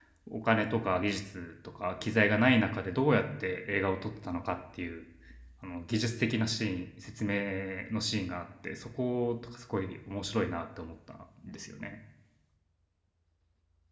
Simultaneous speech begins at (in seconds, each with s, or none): none